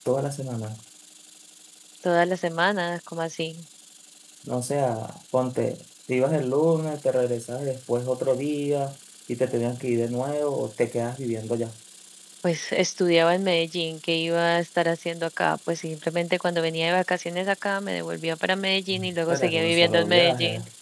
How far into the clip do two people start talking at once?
18.9 s

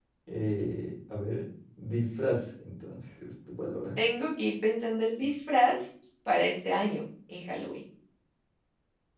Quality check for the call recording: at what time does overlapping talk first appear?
none

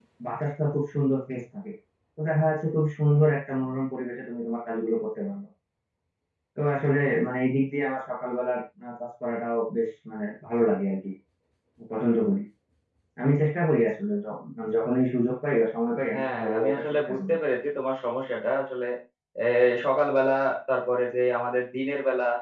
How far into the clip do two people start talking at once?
16.1 s

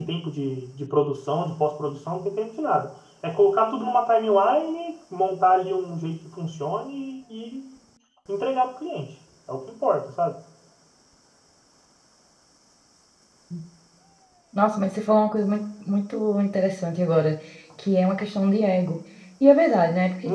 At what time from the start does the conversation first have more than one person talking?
none

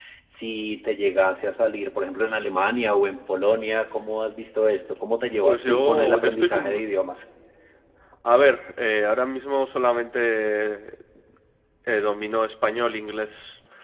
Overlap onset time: 5.4 s

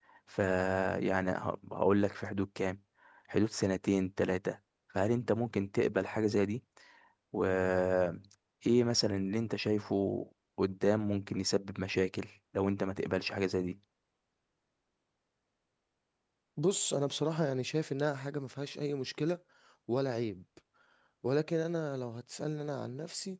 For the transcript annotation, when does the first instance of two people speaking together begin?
none

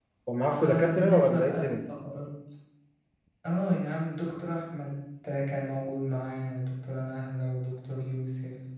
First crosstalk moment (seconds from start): 0.5 s

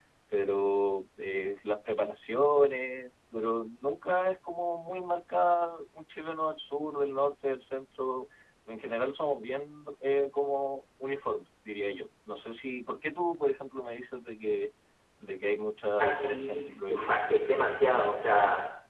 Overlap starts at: 16.0 s

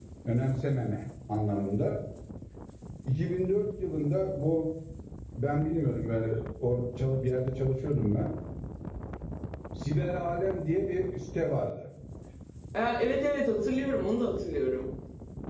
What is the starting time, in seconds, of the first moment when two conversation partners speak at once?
none

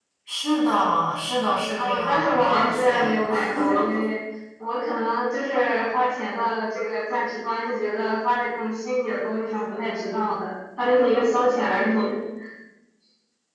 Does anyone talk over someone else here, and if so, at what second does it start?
1.7 s

